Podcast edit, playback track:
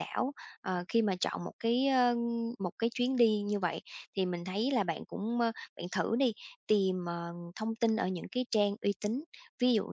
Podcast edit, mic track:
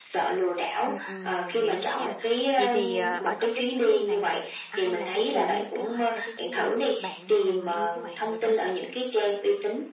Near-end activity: present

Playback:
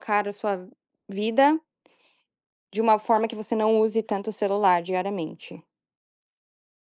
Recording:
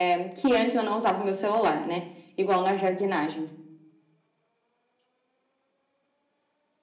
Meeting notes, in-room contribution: present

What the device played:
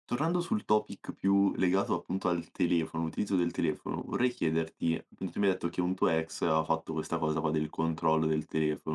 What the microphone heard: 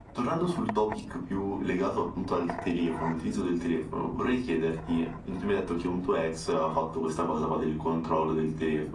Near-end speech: none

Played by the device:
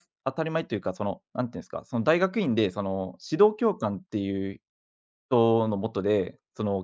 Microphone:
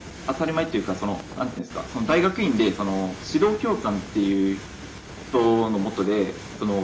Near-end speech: none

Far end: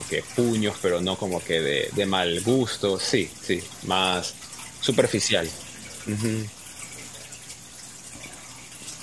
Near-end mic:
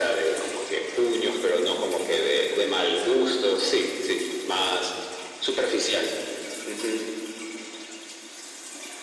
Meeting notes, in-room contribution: none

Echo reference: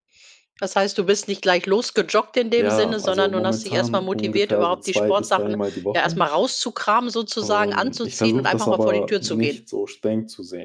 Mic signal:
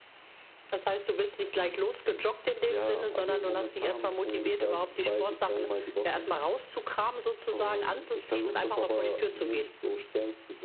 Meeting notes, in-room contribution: none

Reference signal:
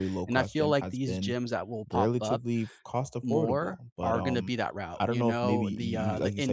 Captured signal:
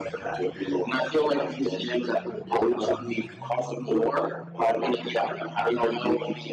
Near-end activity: none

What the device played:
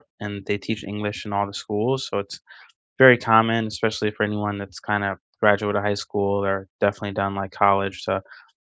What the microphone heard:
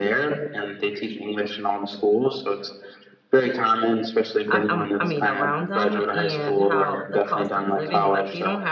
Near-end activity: present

